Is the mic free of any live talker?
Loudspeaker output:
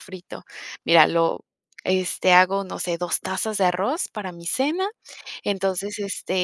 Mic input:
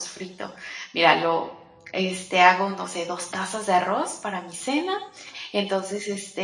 Yes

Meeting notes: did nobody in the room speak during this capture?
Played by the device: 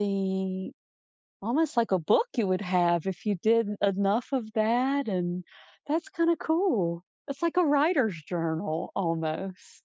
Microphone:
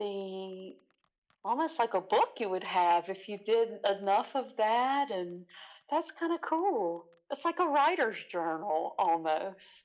Yes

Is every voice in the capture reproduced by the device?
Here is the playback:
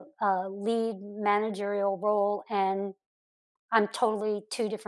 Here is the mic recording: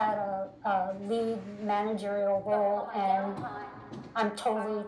No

